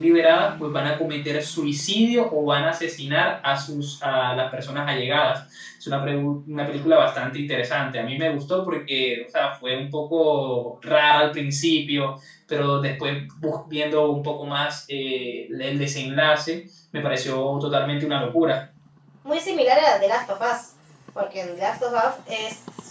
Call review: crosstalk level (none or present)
none